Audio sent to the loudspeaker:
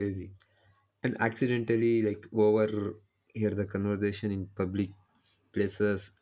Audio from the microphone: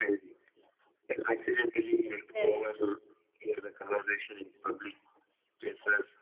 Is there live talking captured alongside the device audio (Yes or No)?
Yes